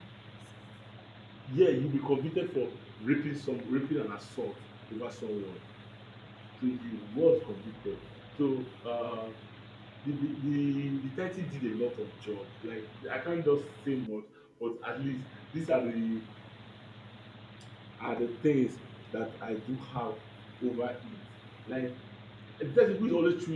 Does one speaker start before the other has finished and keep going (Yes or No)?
No